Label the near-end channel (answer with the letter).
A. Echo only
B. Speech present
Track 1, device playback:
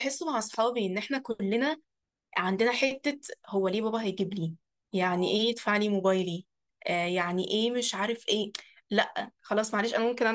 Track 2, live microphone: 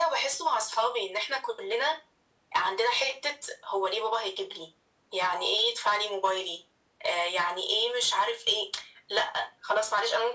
A